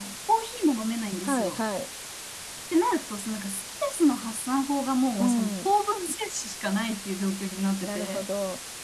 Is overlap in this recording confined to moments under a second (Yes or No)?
Yes